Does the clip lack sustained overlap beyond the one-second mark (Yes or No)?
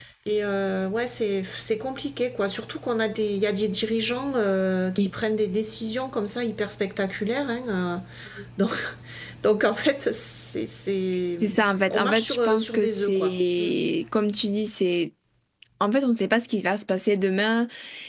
No